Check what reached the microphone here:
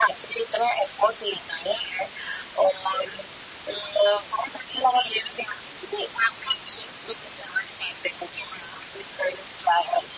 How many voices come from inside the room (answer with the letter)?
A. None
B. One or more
A